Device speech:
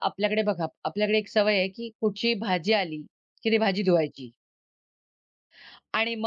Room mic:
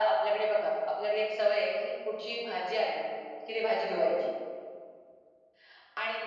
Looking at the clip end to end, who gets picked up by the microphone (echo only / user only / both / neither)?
echo only